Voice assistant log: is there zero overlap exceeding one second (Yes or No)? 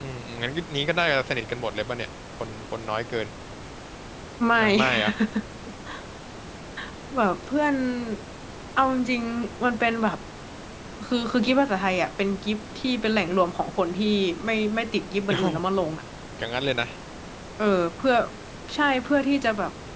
Yes